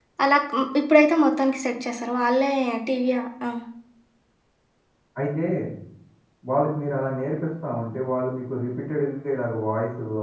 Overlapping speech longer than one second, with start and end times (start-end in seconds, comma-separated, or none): none